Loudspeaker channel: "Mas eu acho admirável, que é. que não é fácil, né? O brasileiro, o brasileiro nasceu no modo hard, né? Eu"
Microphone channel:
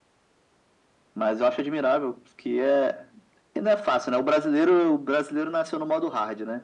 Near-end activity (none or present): none